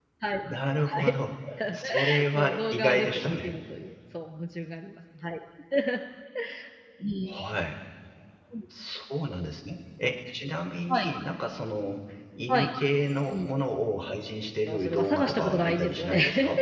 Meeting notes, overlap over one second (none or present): present